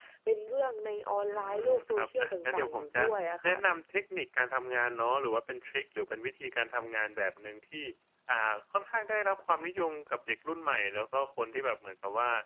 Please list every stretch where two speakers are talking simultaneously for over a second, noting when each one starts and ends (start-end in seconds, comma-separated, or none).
1.3-3.0